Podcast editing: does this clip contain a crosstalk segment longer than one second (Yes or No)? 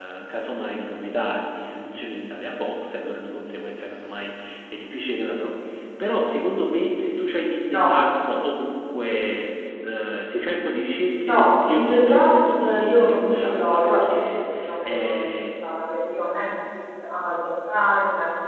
Yes